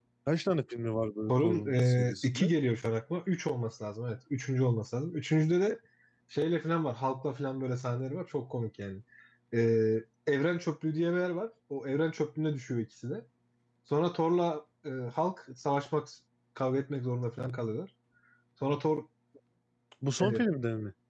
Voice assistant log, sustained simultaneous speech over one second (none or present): present